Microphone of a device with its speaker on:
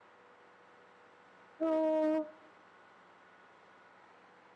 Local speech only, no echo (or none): そう。